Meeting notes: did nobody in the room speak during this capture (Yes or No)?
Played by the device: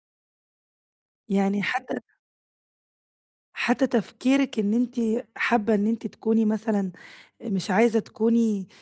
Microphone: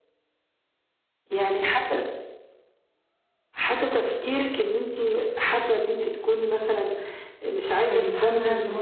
No